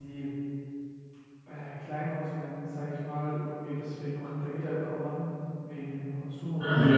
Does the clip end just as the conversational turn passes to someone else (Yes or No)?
Yes